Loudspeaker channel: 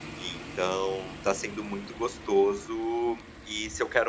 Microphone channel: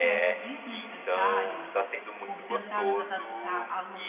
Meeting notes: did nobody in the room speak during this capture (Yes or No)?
No